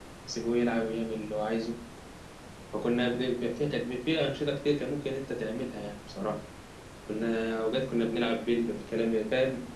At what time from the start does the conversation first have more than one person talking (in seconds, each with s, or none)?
none